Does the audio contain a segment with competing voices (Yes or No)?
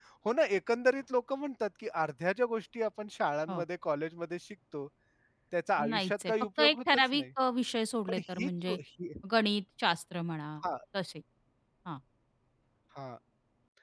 Yes